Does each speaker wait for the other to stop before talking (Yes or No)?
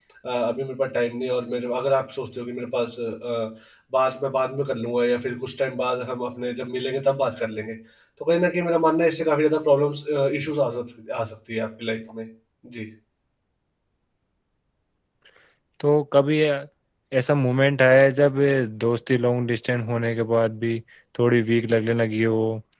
Yes